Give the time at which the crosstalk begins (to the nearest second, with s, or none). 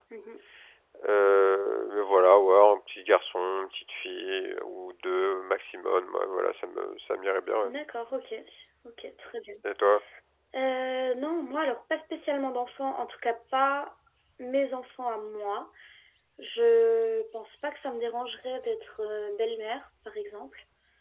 none